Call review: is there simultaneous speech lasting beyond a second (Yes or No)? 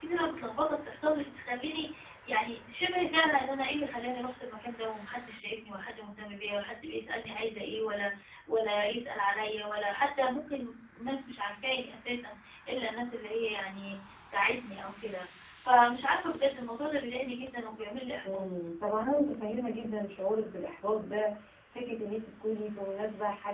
No